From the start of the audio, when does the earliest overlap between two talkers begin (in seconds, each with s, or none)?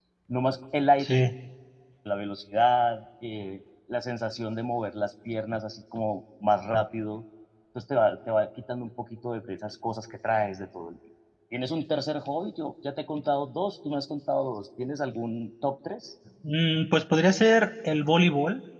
none